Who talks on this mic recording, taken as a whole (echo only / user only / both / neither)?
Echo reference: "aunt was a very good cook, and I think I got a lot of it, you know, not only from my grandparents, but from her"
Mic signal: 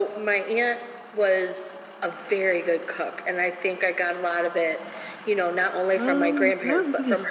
both